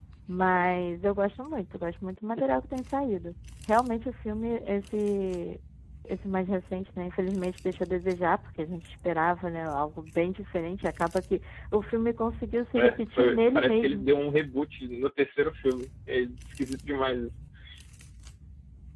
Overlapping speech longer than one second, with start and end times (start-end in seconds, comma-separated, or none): 12.8-14.0